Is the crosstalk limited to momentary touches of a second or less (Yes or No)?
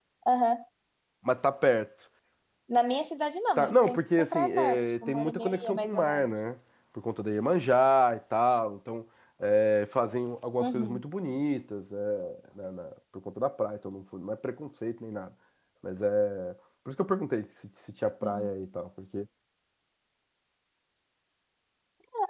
No